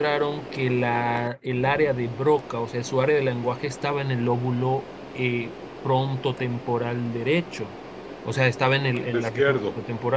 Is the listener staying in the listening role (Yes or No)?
Yes